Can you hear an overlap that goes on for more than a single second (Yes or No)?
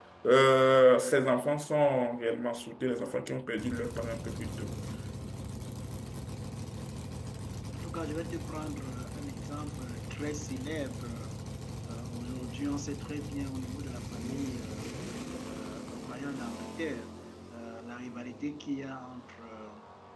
No